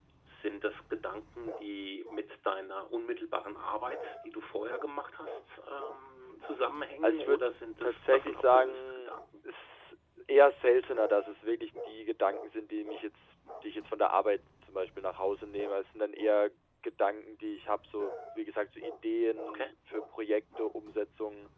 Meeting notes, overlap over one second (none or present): present